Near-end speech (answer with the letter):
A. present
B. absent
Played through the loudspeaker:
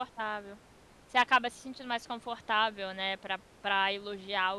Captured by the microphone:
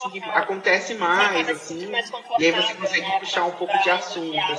A